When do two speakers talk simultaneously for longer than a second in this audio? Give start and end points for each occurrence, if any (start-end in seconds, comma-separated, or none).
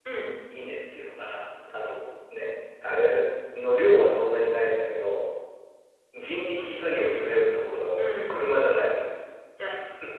none